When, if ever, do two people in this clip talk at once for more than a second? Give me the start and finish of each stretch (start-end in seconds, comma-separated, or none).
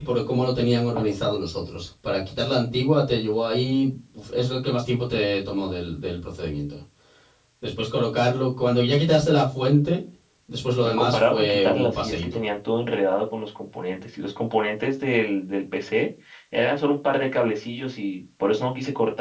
10.9-12.4